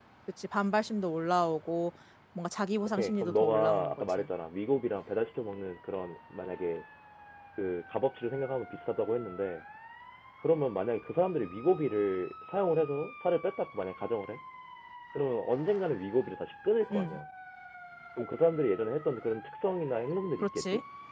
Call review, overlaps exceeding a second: present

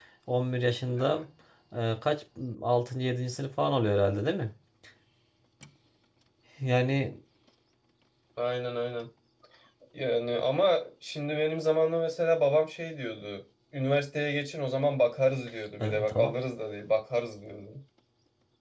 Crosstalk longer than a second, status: none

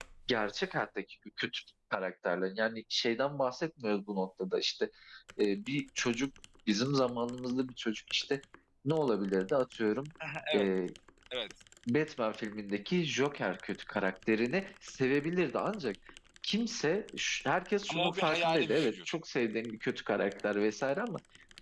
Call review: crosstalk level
present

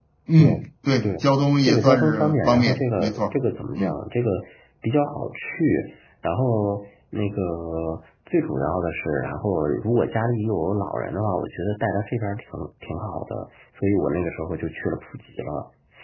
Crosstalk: present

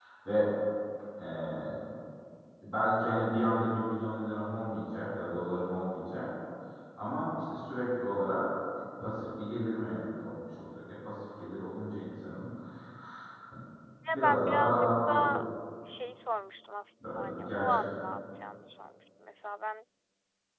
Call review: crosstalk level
present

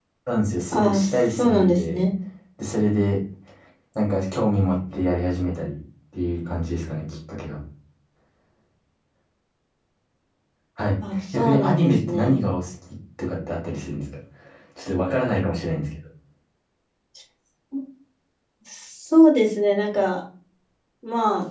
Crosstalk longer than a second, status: present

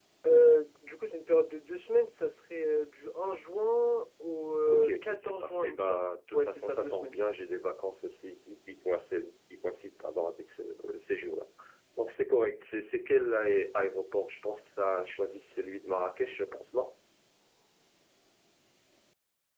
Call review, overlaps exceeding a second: present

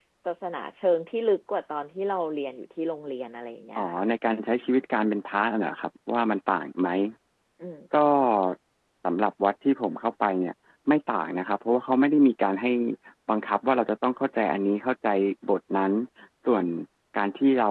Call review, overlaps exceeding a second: none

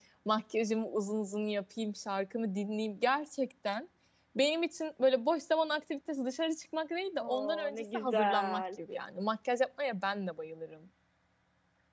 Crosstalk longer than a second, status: present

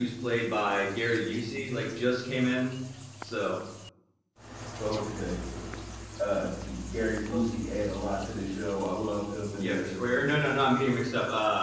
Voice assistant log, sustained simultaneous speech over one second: none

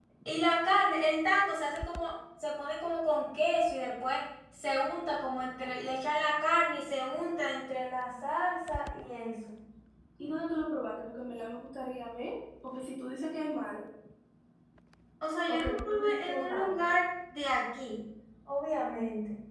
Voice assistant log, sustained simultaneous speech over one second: present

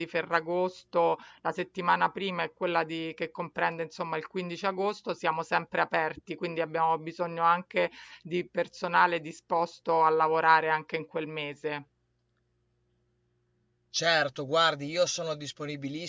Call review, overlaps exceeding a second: none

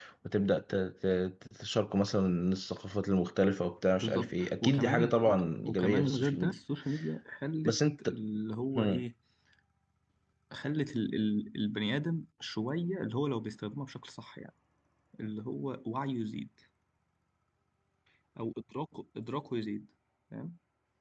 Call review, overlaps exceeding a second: present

